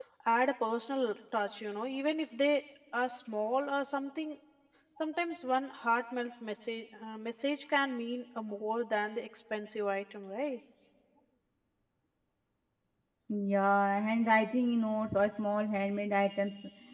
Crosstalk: none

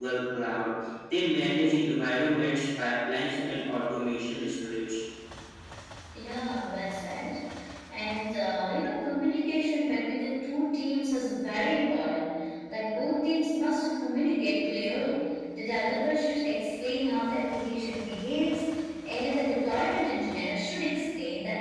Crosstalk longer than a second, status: none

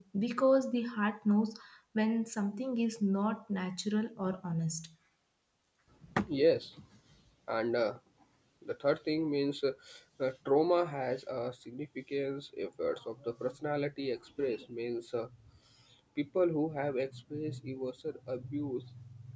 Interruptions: none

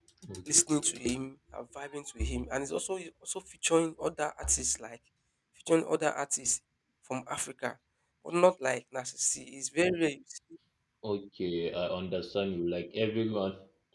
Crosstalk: none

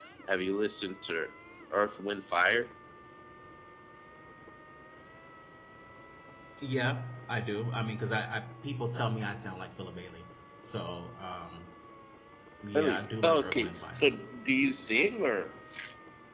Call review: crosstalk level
present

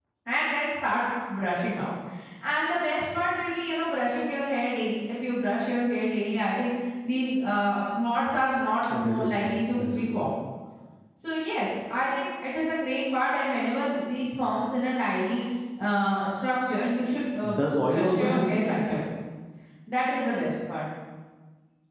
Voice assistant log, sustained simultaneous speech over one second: present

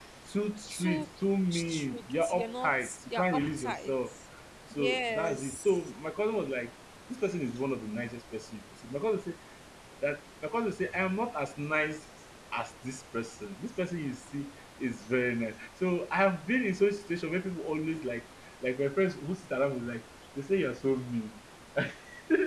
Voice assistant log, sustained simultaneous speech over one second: present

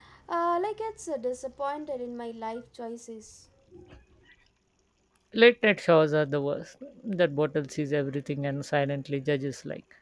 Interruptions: none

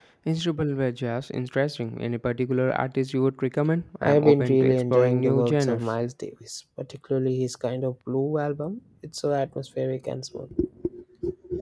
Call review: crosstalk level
present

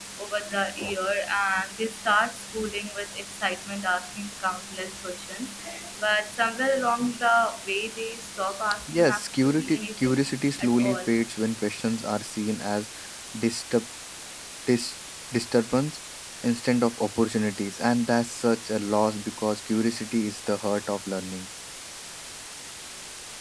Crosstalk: present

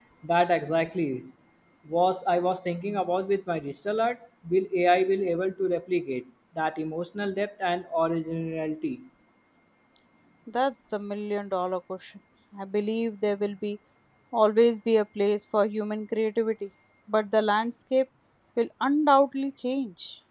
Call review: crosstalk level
none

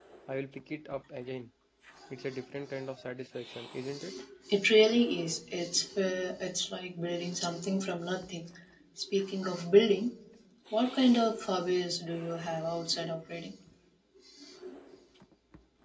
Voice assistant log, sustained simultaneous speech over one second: none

